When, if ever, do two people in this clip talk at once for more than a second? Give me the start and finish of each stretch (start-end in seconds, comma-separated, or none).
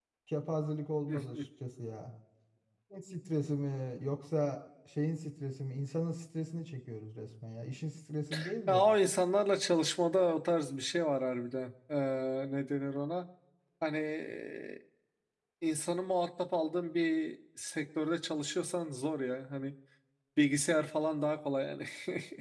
none